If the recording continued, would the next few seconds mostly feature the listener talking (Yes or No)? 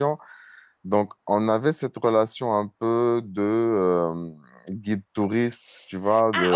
Yes